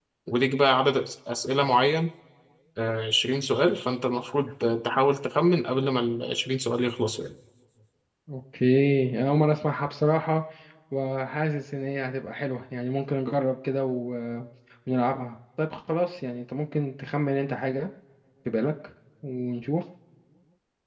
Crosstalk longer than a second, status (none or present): none